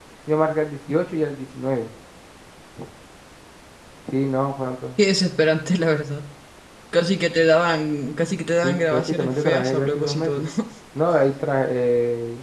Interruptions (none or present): present